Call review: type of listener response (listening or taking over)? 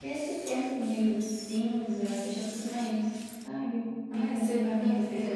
taking over